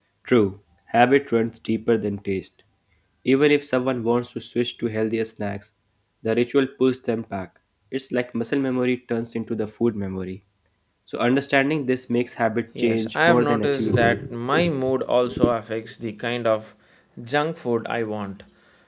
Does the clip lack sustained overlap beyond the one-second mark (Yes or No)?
No